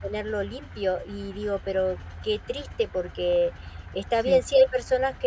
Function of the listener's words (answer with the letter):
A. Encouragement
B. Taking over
A